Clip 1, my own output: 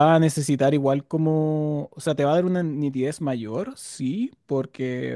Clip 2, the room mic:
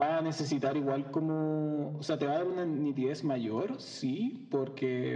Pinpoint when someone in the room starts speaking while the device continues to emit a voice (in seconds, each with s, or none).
none